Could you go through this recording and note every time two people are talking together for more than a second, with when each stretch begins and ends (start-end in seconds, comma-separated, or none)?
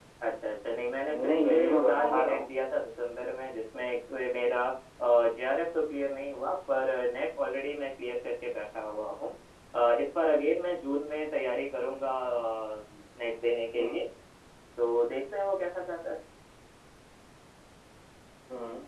1.1-2.5